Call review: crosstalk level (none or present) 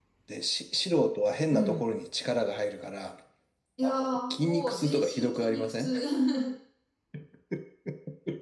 present